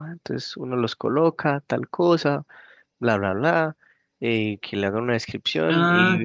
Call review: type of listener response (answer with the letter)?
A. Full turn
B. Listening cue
B